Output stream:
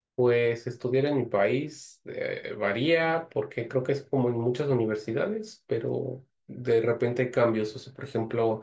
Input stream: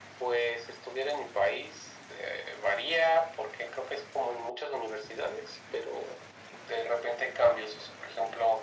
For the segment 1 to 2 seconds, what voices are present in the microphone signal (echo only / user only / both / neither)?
echo only